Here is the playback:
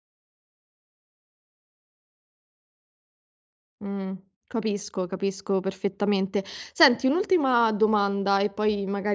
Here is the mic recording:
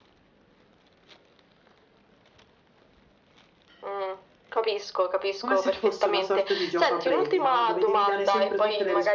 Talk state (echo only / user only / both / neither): both